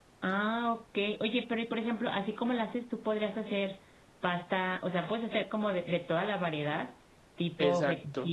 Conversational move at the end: listening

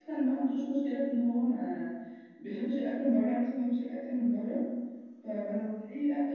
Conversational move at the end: listening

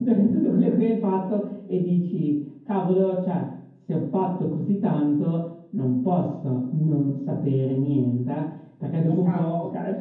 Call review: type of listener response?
listening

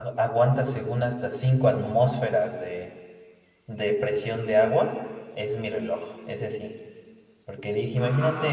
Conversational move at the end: listening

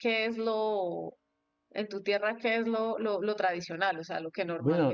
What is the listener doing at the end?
taking over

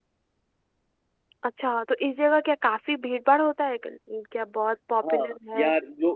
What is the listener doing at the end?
taking over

